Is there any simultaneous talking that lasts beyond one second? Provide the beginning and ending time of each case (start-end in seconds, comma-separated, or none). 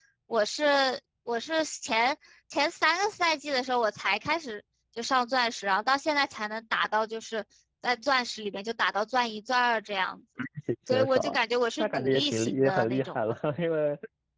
11.8-13.2